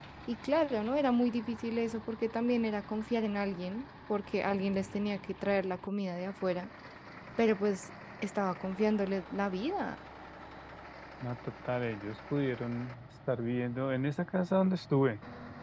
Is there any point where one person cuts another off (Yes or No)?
No